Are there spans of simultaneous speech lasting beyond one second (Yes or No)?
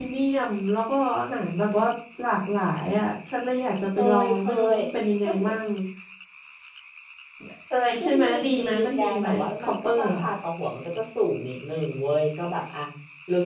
Yes